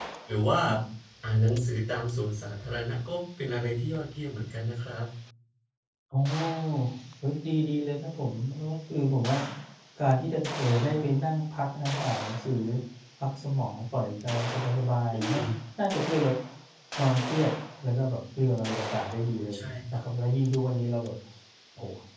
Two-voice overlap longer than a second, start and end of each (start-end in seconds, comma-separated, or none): none